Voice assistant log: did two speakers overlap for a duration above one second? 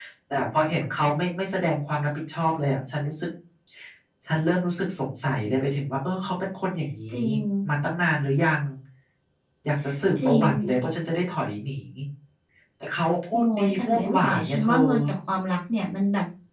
Yes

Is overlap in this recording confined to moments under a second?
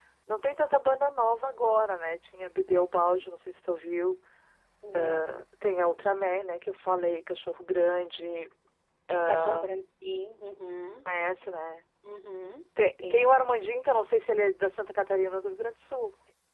Yes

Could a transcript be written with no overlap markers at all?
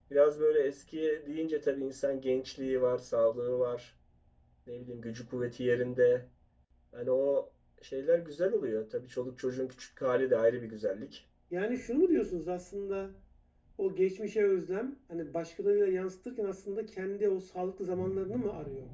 Yes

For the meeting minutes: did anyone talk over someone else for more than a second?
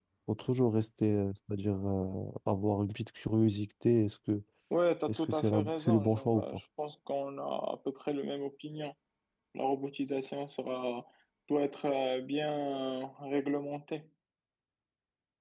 Yes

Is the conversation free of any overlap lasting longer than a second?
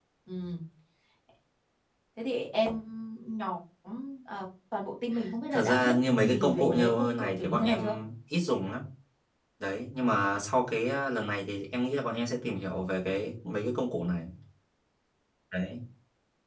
No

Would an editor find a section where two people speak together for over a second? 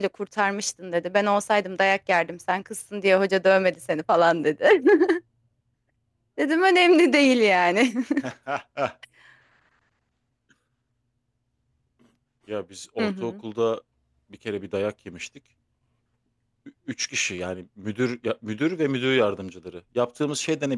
No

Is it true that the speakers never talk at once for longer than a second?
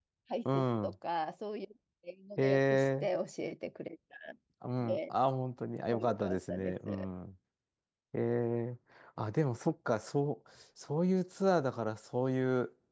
No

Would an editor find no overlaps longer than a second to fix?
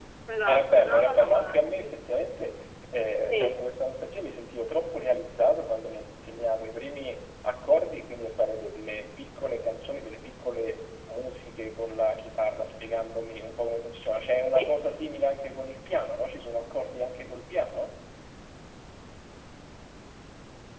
No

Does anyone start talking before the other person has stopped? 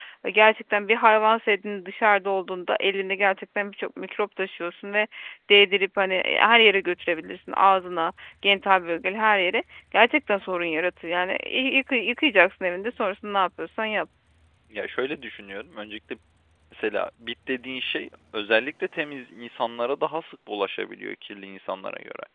No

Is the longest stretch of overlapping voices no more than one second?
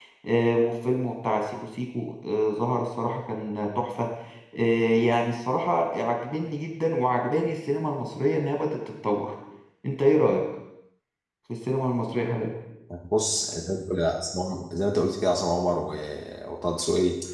Yes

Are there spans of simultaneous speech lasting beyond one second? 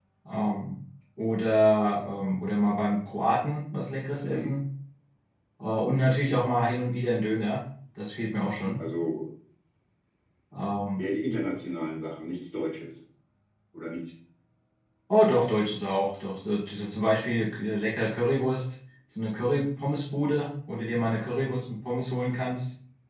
No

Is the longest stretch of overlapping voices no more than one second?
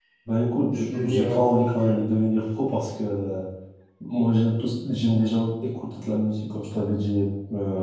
No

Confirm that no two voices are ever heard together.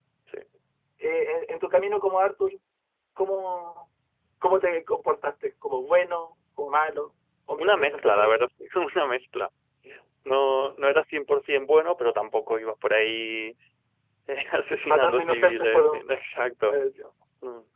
No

